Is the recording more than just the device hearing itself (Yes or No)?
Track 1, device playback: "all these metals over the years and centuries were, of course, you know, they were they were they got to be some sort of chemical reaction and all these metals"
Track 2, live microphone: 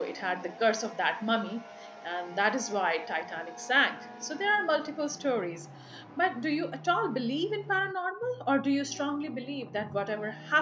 Yes